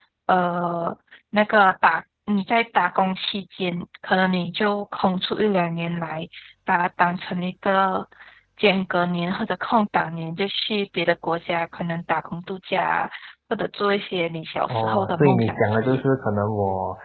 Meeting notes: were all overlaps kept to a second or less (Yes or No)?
No